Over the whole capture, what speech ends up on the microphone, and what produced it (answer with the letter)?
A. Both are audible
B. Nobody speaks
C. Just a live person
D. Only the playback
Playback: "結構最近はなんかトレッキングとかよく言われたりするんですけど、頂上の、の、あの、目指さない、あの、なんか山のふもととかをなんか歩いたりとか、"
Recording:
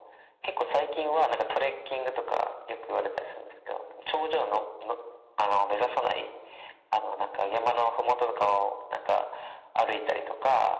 D